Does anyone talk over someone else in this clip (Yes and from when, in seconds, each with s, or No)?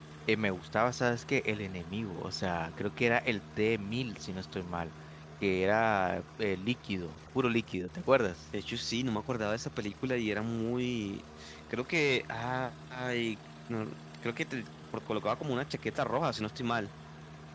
No